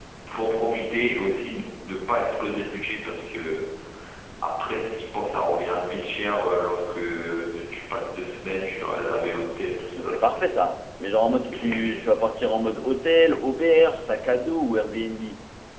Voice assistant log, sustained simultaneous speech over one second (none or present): none